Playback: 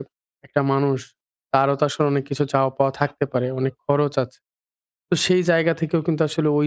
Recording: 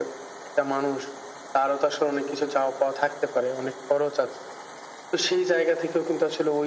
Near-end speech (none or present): none